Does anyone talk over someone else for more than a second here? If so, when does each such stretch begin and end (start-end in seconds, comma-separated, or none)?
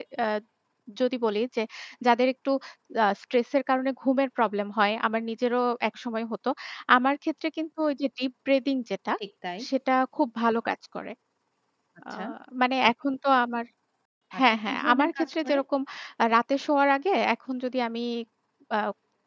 14.4-15.6